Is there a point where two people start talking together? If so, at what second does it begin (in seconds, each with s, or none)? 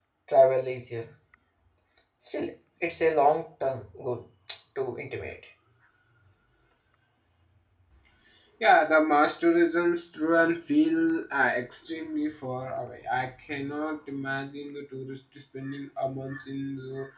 none